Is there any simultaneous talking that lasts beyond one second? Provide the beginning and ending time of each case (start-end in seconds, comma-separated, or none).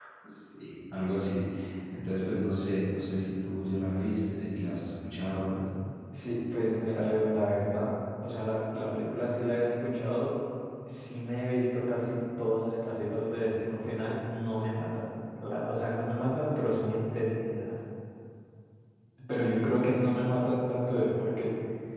none